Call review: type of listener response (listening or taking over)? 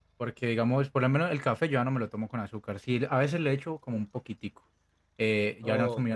listening